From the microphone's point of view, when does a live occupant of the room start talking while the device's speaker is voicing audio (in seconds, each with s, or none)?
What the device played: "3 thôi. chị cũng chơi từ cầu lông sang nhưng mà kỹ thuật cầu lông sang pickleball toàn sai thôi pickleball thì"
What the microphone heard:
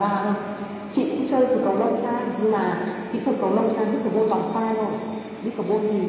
none